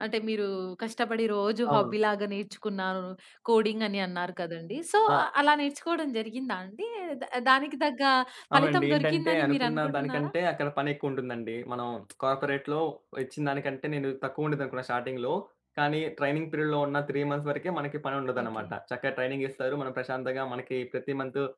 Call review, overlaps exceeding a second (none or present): present